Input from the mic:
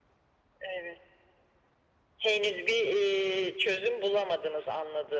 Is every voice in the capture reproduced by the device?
Yes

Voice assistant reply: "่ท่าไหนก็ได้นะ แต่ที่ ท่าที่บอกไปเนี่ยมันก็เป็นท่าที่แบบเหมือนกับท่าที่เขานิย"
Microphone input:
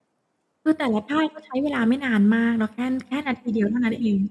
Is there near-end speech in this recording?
Yes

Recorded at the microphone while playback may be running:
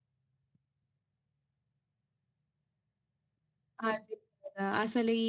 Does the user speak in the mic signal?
Yes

